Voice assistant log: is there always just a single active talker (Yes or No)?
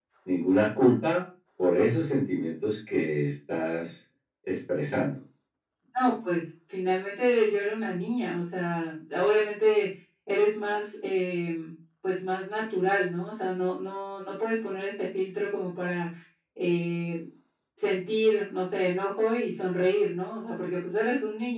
Yes